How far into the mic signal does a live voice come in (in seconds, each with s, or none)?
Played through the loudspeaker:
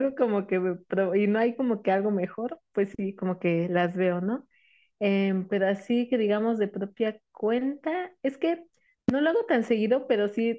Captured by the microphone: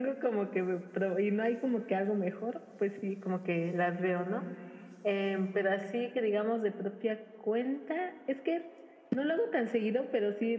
none